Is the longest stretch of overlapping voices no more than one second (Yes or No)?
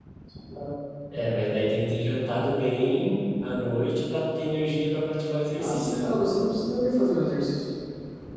Yes